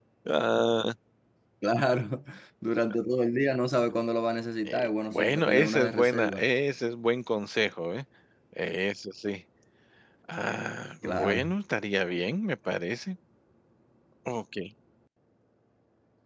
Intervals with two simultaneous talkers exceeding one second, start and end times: 4.6-6.5

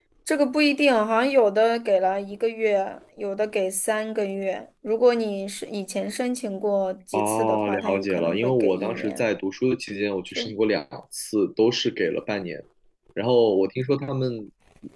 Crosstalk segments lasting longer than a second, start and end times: 7.1-9.3

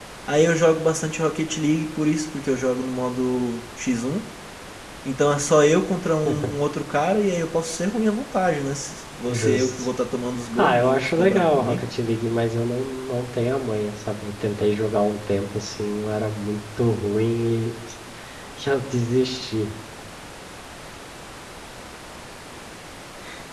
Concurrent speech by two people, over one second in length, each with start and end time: 10.6-11.8

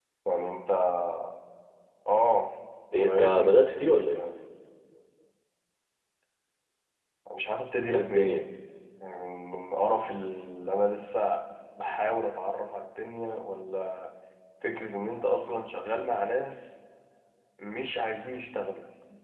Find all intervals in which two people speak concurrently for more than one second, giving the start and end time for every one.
3.0-4.2

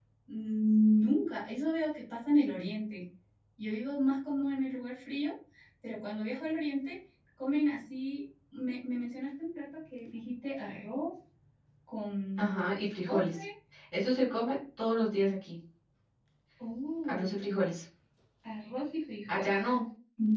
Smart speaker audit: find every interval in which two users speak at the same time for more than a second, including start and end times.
none

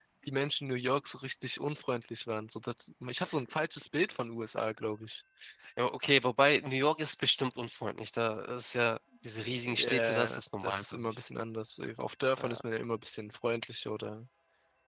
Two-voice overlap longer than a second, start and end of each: 9.7-11.1

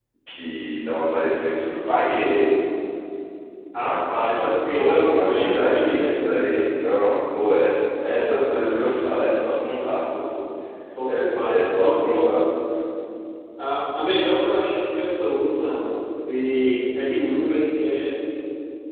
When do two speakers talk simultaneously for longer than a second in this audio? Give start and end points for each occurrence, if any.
3.8-6.7, 11.1-12.4

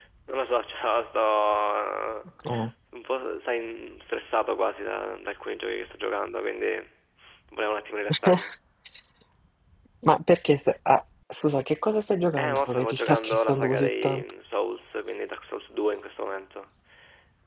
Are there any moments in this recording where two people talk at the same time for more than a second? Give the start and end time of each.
12.4-14.2

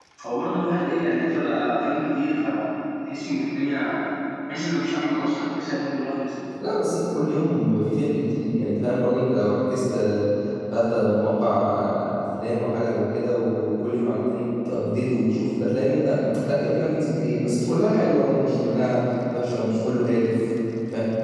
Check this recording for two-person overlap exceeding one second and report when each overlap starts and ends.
none

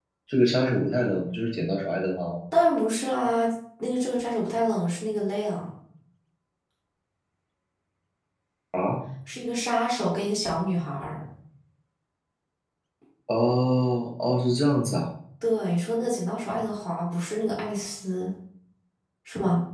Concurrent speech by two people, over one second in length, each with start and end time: none

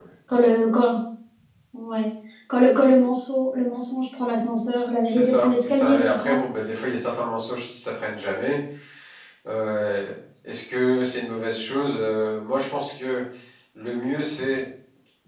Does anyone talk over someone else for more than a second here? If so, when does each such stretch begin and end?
5.0-6.3

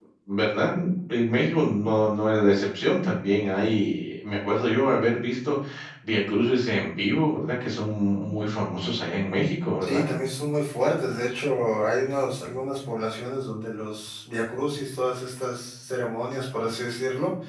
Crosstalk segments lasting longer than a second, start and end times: none

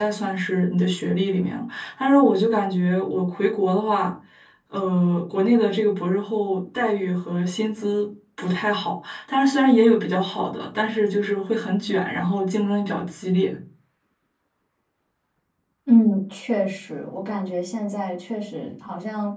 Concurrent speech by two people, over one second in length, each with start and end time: none

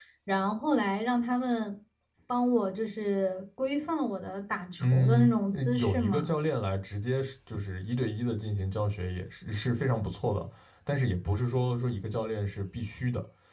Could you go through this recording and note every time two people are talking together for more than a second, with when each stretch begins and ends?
4.8-6.3

